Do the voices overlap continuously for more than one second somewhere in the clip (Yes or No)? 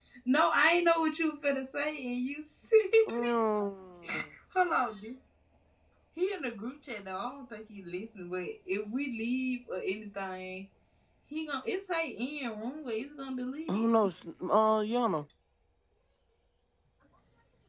No